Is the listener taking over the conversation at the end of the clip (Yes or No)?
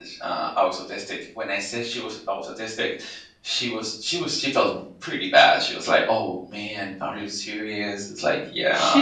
Yes